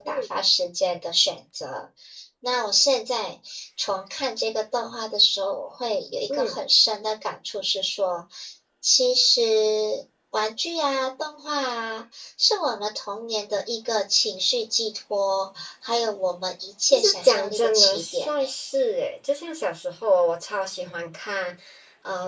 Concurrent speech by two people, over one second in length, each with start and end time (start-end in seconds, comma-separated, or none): 16.9-18.4